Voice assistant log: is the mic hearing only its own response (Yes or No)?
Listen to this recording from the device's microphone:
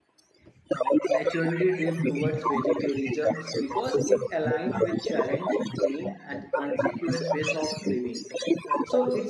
No